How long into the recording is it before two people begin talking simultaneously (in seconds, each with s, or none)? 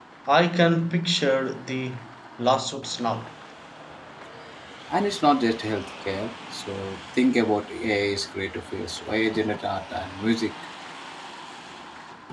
none